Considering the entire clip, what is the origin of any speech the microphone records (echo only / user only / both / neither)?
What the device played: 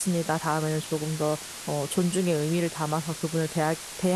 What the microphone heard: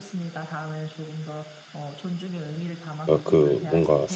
both